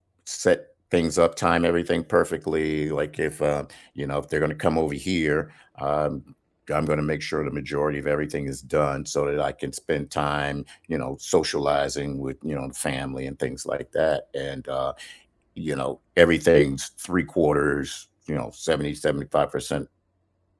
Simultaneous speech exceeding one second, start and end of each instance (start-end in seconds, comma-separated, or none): none